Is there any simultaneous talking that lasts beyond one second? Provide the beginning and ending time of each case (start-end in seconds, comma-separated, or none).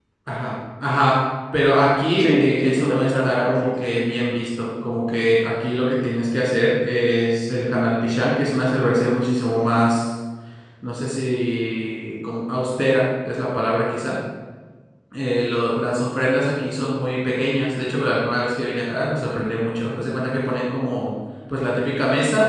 2.2-3.7